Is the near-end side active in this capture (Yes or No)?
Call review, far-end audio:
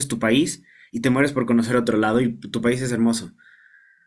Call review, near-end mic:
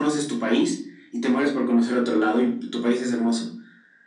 No